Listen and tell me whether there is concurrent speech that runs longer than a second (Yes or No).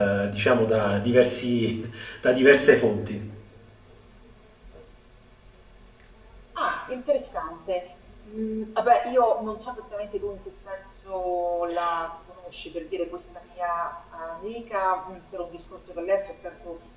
No